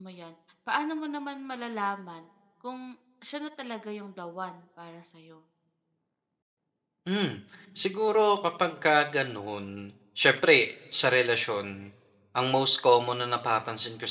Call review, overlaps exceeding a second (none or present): none